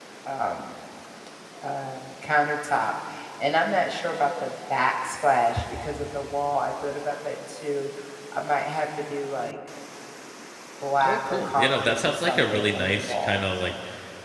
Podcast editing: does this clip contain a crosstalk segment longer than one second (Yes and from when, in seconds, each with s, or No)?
Yes, from 11.0 s